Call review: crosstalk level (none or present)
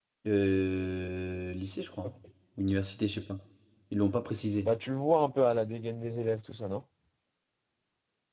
none